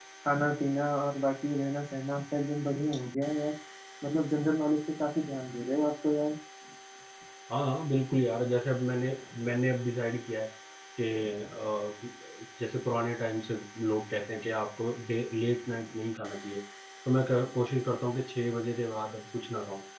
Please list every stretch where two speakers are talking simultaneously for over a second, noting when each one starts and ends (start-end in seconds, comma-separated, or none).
none